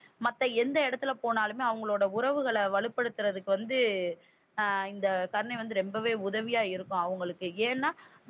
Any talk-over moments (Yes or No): No